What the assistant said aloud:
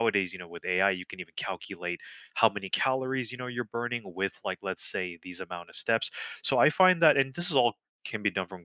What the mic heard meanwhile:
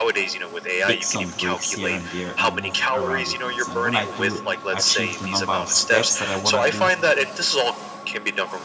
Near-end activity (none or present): present